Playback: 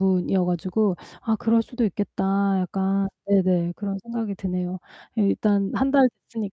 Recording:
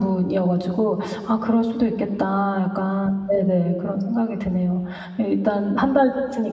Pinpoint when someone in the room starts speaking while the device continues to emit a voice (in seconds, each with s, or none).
none